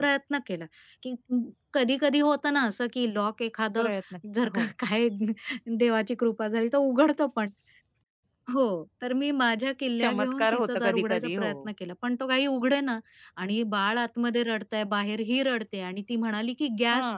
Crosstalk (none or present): present